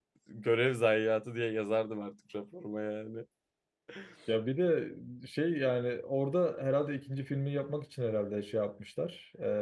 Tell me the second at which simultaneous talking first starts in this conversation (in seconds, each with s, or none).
none